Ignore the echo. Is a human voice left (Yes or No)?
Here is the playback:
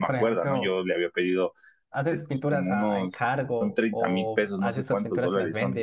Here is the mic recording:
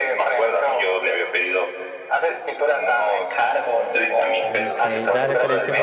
Yes